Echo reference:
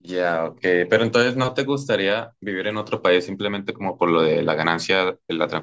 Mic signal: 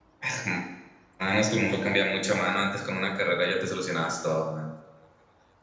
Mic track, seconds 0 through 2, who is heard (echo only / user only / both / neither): user only